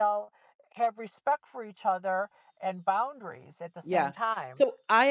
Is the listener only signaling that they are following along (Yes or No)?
No